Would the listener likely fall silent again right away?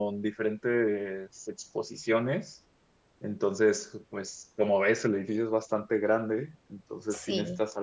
Yes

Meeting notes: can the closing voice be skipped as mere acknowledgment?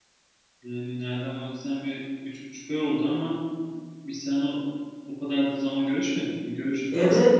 No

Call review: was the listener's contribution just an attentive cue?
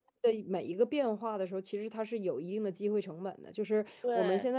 Yes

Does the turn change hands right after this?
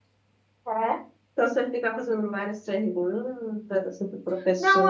Yes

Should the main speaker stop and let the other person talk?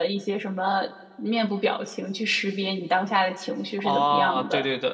Yes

